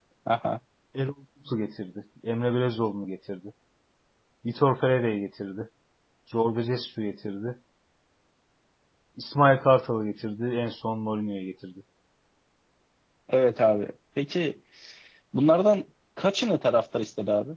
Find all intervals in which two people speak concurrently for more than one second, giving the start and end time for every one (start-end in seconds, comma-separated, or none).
none